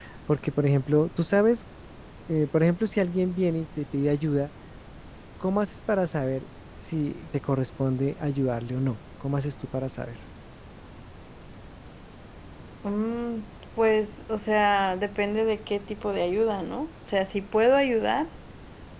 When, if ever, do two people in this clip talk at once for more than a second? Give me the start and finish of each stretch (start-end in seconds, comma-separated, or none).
none